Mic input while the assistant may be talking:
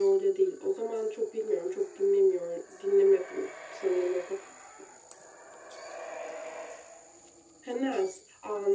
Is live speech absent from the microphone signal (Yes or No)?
Yes